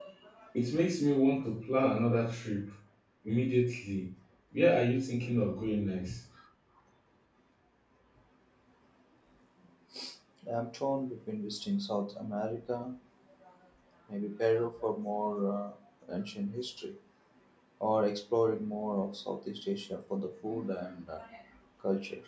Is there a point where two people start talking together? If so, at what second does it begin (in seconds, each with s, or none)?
none